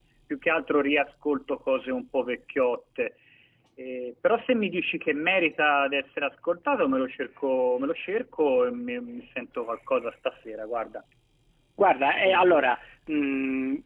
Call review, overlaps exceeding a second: none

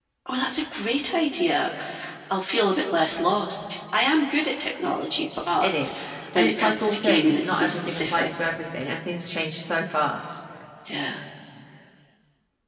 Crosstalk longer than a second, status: present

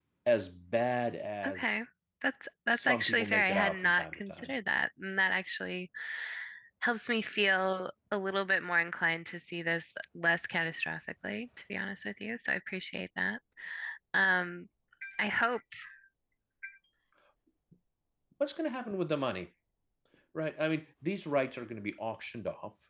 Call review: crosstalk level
present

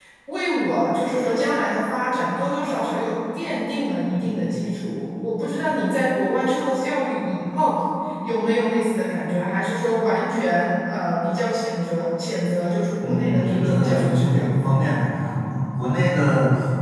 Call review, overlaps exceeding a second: present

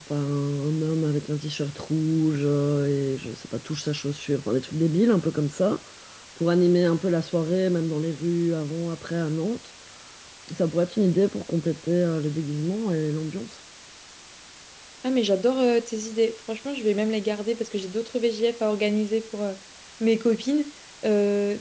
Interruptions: none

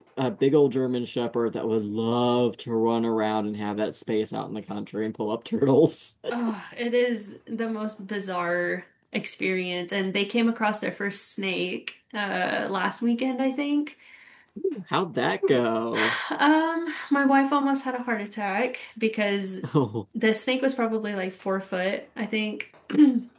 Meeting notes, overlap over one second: none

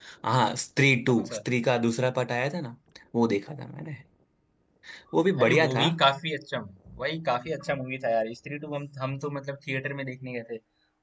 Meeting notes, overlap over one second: none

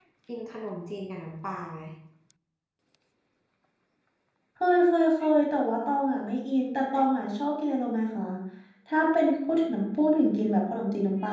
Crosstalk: none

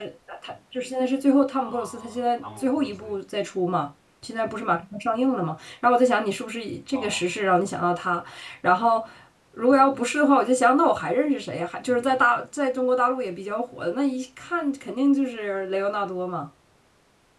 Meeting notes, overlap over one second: present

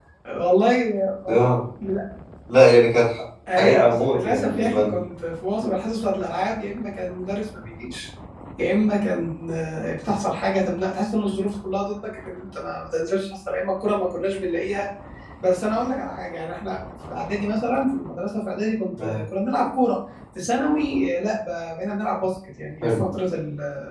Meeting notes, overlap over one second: present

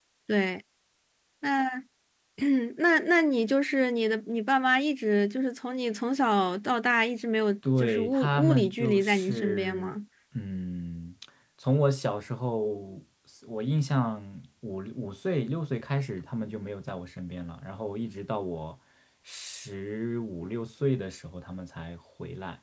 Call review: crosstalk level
present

